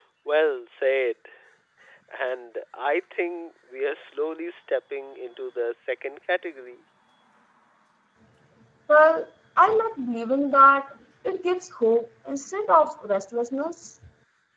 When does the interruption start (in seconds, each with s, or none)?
none